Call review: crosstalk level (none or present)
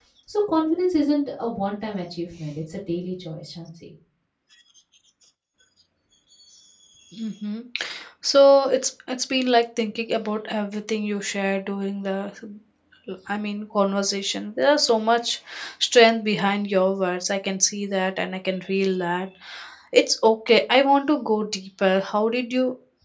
none